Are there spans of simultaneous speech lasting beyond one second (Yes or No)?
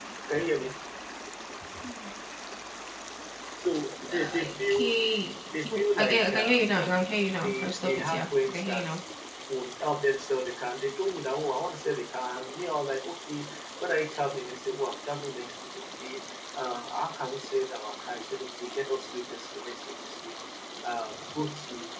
Yes